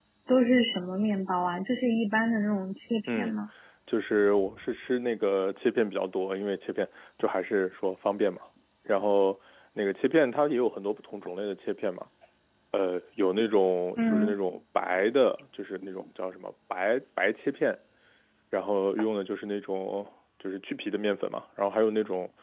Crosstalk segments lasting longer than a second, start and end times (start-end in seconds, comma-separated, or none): none